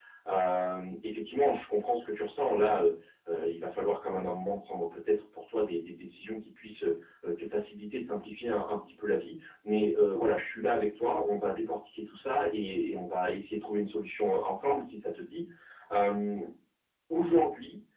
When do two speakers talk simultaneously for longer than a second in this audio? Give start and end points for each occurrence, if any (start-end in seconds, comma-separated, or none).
none